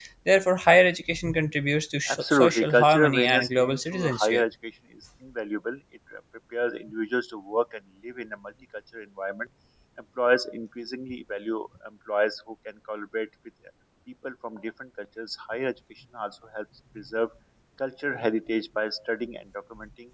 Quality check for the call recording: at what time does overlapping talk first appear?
2 s

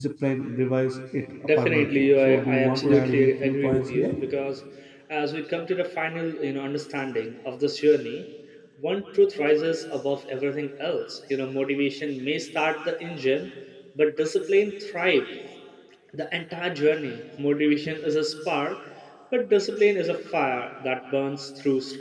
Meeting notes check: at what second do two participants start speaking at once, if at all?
1 s

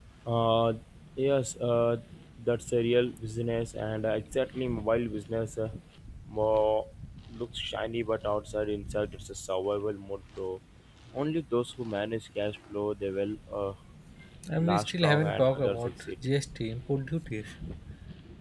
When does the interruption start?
15 s

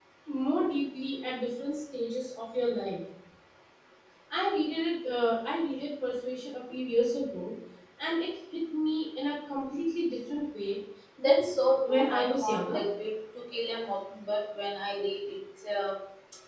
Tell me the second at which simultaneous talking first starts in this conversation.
11 s

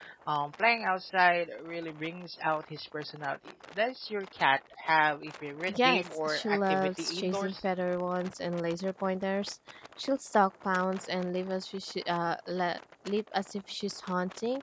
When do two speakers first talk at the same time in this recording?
6 s

